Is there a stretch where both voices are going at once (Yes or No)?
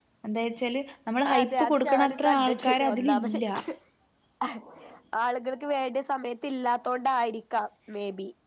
Yes